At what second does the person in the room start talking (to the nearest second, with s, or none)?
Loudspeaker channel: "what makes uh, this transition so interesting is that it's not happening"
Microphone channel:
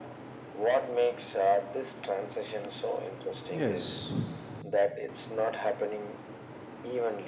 4 s